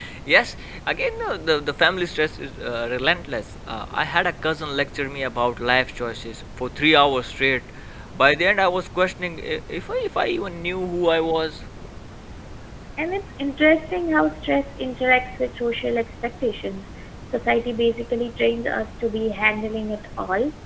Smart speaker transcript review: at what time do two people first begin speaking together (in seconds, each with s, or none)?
none